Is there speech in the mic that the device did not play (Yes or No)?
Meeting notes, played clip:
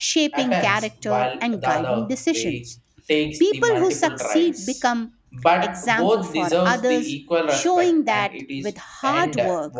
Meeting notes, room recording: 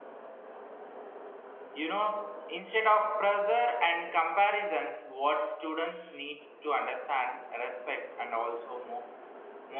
Yes